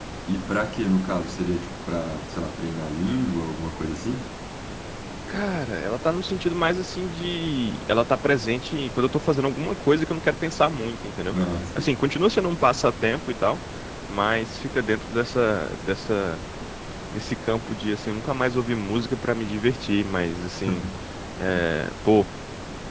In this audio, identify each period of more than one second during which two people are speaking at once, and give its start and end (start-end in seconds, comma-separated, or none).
none